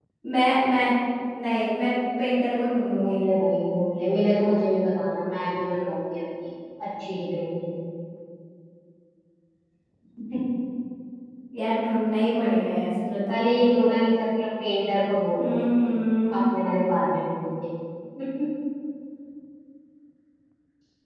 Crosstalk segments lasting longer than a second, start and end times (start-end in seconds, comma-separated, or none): none